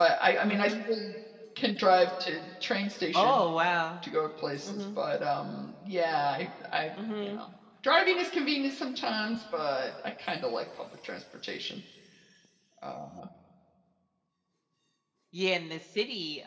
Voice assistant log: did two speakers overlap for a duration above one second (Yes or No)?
No